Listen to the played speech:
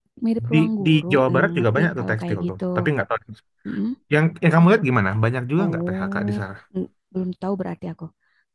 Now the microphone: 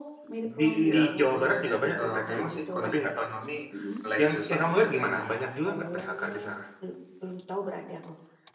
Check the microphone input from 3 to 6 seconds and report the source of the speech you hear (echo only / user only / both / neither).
both